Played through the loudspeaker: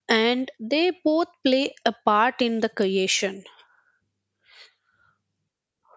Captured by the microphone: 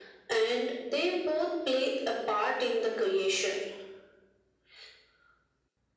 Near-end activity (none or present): none